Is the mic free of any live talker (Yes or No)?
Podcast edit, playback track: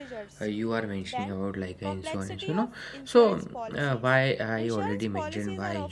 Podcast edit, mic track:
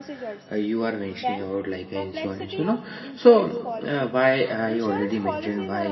Yes